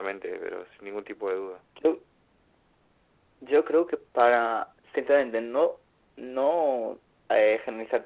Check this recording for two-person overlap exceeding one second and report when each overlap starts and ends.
none

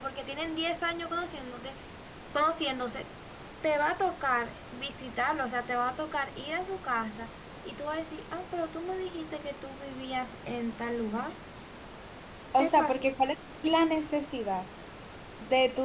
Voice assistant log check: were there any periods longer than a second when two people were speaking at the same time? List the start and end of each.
none

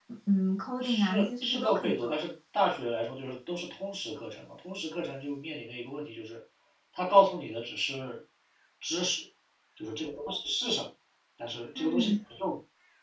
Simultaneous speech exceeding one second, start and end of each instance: 0.8-2.1

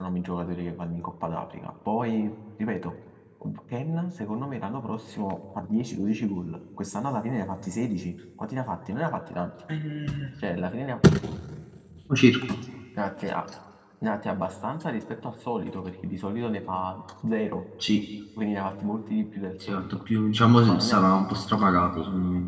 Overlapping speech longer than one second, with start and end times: none

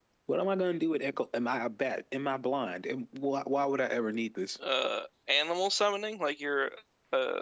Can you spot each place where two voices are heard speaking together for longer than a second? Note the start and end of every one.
none

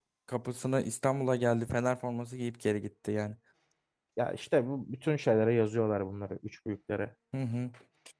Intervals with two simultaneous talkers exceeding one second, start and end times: none

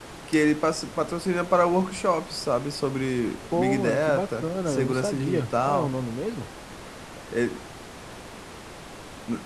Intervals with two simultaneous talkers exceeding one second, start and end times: 3.5-5.9

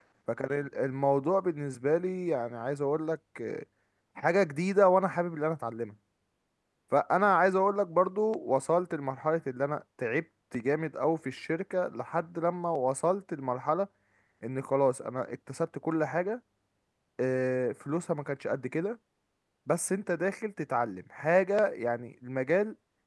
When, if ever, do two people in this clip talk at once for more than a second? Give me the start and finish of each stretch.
none

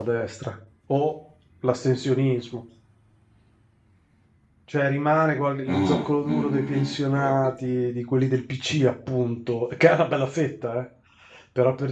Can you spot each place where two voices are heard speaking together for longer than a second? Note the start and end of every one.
5.7-7.5

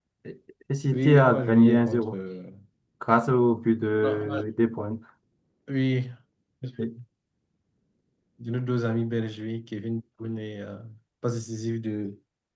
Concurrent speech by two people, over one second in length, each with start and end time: 0.9-2.1

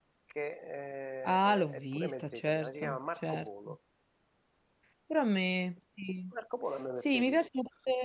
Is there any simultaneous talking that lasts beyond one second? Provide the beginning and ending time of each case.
1.4-3.5

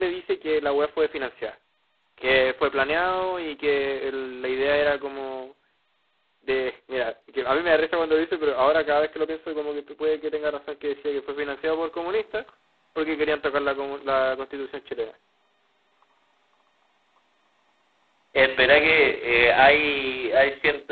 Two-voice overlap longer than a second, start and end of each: none

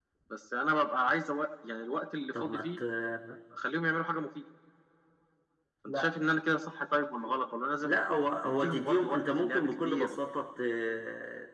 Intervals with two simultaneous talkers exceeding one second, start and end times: 8.4-10.2

